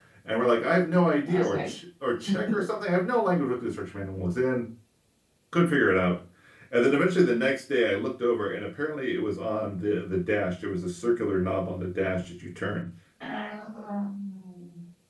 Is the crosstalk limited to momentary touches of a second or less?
Yes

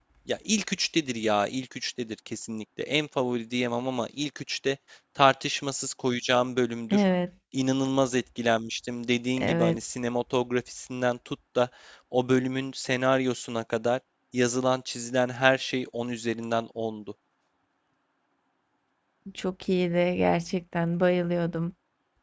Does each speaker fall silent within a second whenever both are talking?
Yes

